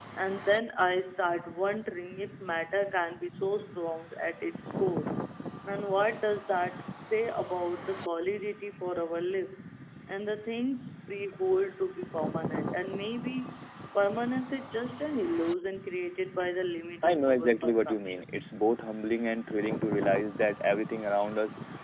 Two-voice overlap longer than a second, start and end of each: 17.0-18.3

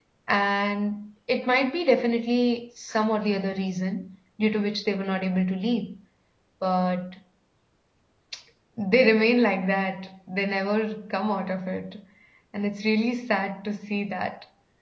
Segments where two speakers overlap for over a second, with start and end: none

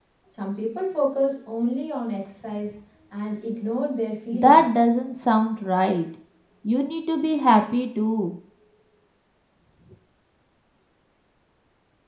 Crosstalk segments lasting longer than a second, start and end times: none

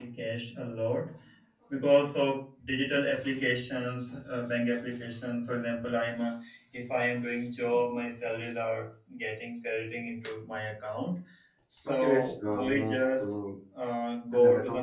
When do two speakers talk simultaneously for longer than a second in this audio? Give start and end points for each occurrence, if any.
11.8-13.4

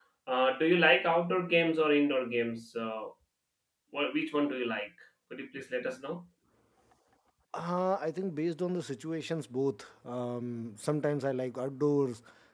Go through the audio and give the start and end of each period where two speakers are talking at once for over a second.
none

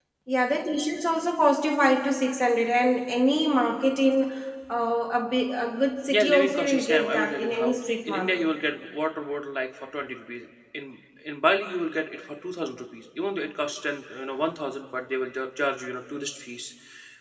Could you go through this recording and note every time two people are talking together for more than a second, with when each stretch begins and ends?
6.1-8.4

